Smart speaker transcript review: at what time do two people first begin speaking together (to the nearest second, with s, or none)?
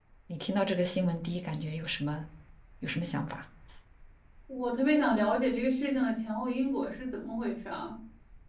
none